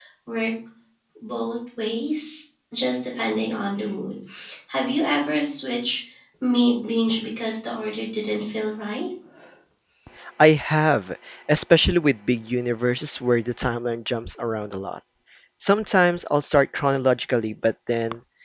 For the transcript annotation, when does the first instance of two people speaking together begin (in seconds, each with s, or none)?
none